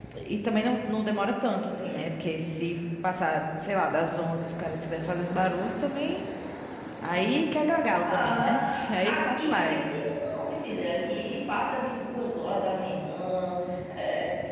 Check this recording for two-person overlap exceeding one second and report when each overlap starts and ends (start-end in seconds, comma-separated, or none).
8.1-9.8